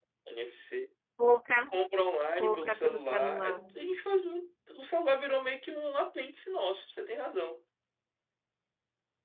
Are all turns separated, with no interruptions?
No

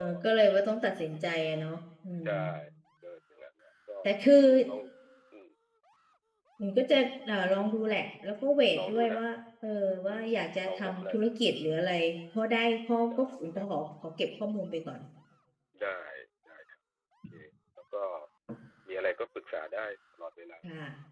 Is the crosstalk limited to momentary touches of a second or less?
Yes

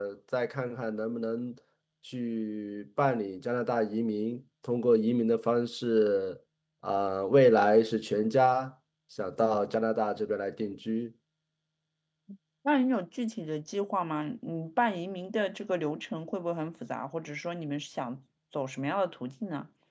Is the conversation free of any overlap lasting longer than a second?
Yes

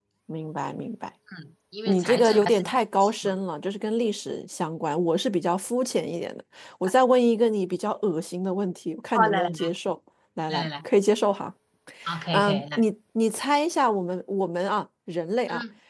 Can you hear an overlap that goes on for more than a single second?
Yes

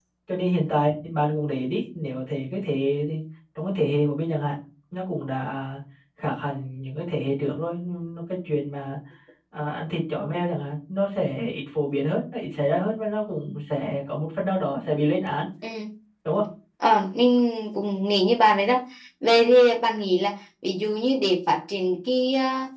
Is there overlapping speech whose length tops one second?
No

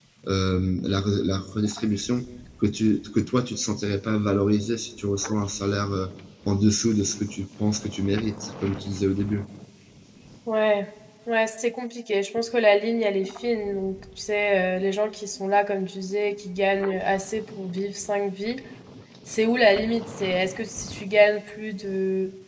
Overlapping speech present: No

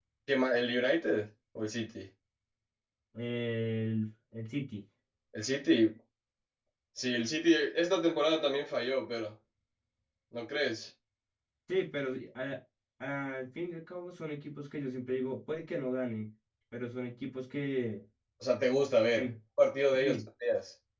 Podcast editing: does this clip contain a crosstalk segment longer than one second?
No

